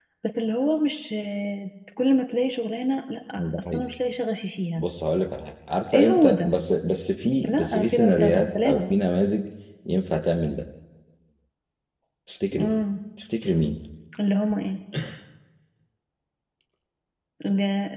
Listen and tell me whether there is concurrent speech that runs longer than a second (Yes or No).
Yes